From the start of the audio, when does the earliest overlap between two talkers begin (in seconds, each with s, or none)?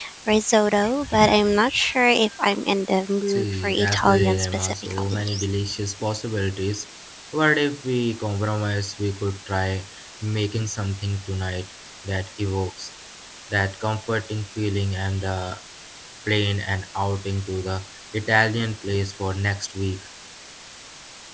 3.3 s